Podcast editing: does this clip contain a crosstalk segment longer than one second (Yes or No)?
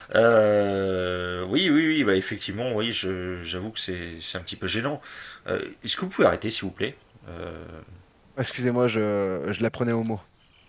No